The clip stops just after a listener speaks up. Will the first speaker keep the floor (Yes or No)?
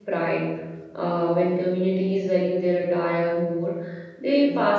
Yes